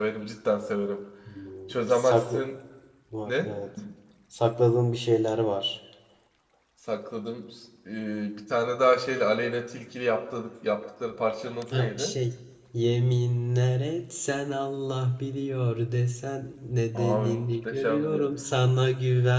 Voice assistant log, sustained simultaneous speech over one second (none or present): present